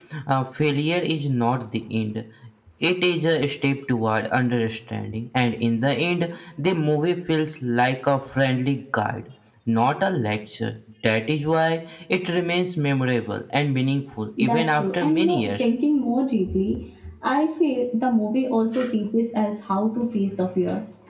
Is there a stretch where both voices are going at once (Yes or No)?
Yes